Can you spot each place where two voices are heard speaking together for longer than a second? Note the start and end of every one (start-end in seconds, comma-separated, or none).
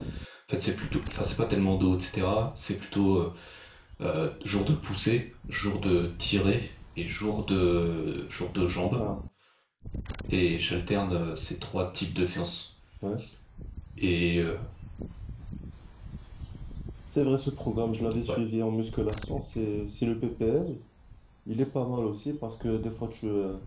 none